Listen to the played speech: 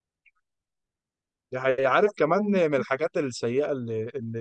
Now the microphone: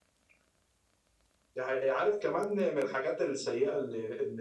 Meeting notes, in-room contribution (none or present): none